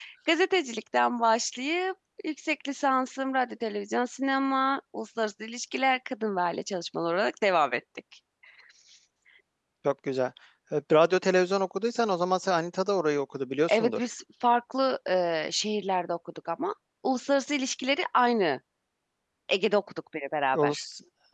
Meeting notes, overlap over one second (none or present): none